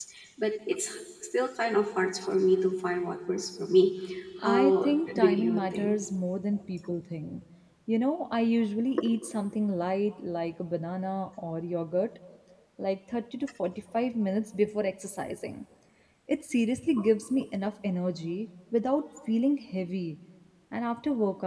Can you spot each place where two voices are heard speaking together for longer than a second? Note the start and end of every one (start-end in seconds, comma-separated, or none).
4.4-6.0